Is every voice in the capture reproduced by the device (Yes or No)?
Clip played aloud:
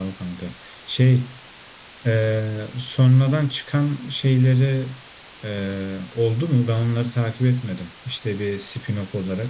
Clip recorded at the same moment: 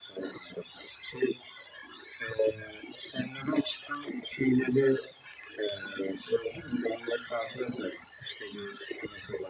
Yes